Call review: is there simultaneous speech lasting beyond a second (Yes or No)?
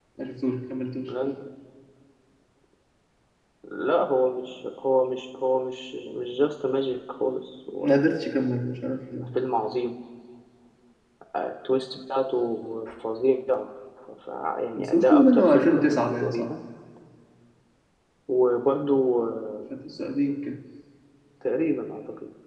Yes